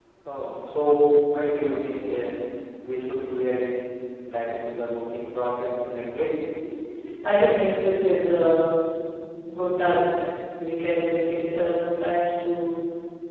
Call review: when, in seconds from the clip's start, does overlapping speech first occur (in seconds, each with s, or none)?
none